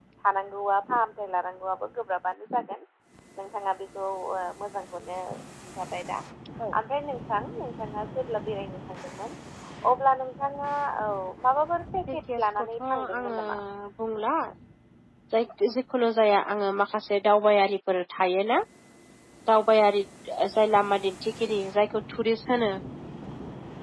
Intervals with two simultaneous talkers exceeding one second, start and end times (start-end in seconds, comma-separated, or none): 12.1-13.4